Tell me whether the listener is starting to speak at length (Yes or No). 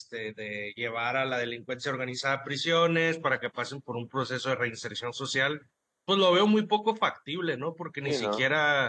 No